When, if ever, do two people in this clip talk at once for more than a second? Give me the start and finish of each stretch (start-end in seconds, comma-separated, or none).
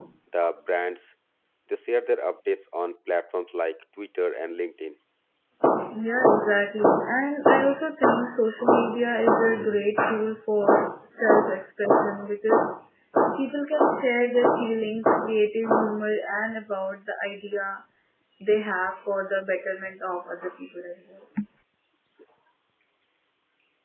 none